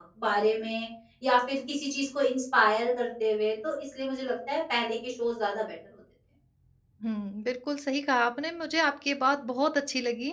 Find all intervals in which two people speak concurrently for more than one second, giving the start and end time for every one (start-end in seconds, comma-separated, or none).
none